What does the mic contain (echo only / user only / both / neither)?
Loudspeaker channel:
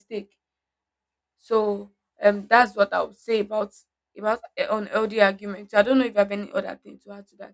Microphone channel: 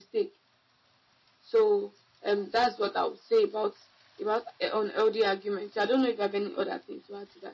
echo only